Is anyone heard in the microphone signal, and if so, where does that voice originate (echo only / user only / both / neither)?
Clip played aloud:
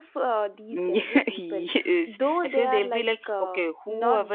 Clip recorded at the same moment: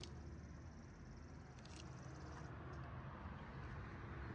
neither